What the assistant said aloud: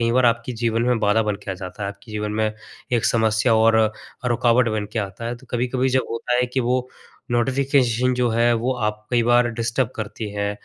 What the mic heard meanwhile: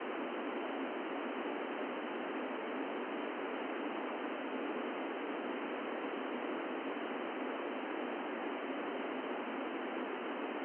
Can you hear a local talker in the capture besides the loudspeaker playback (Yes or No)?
No